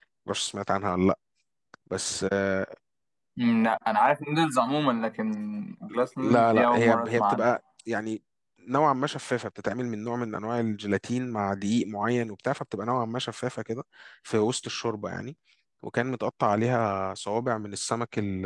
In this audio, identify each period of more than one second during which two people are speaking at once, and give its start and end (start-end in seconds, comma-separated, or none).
6.2-7.6